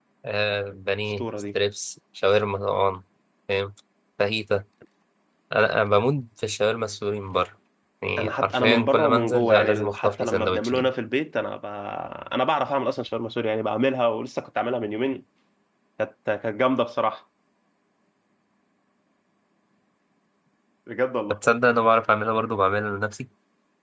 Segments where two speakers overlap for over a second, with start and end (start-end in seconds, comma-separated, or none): 8.2-10.9